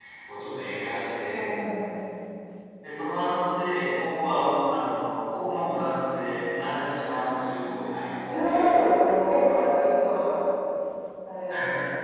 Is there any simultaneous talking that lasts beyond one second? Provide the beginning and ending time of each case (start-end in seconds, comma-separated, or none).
none